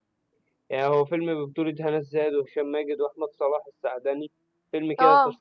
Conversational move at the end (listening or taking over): listening